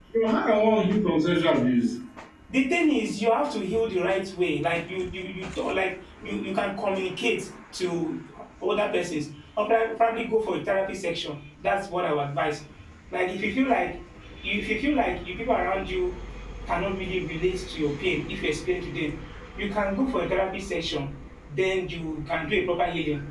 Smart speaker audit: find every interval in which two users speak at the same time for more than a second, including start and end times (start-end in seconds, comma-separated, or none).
none